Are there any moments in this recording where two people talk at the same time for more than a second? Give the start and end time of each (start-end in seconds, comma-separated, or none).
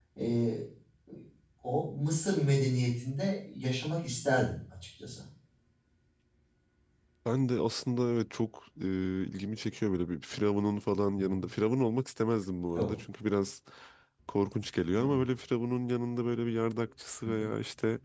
none